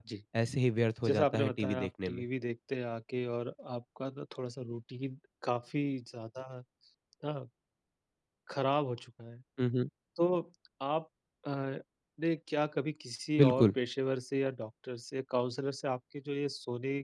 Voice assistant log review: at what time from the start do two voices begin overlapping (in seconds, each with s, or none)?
1.1 s